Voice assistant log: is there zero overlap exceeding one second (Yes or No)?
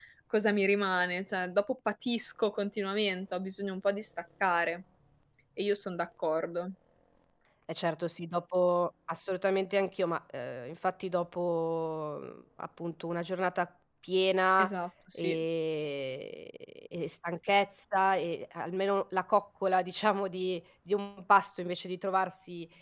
Yes